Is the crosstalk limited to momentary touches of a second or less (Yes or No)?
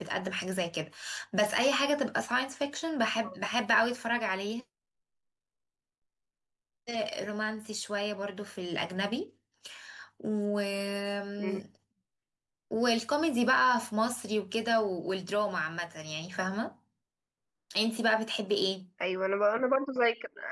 Yes